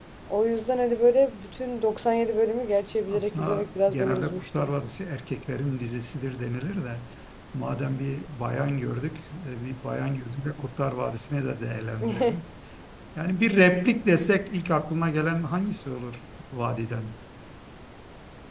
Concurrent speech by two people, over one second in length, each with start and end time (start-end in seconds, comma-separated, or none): 3.1-4.7